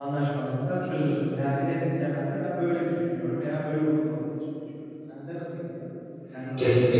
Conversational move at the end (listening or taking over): taking over